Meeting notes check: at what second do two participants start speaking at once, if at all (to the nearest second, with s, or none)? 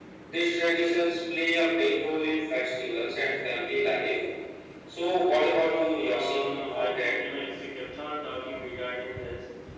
6 s